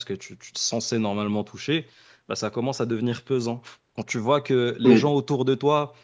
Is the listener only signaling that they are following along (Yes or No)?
Yes